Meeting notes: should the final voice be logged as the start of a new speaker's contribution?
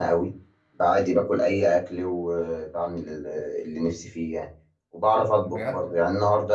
No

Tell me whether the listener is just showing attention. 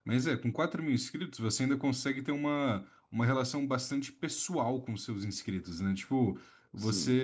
Yes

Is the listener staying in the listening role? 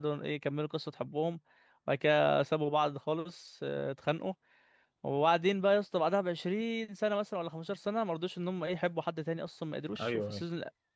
Yes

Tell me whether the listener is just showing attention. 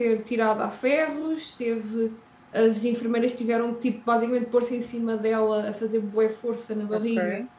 Yes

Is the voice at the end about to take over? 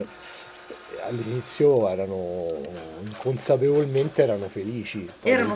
Yes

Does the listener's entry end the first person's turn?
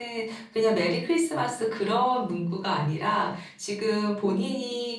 No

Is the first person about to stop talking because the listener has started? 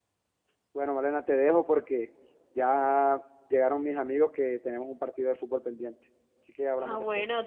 Yes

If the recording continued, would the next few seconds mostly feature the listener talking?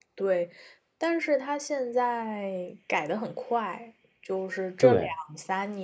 No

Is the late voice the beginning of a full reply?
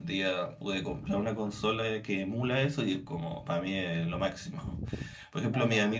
No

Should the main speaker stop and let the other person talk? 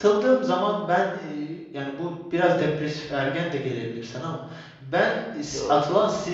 No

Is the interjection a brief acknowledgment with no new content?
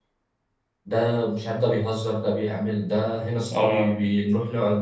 Yes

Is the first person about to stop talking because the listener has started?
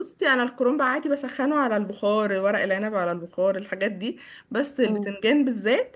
No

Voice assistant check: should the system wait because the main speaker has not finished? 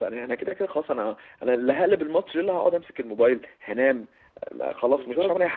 No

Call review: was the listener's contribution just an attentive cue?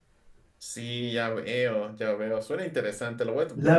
No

